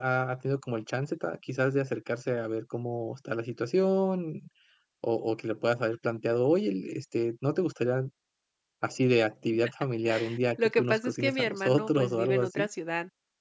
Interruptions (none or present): present